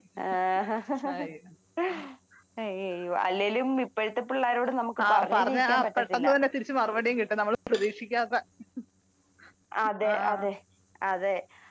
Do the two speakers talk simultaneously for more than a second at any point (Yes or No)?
Yes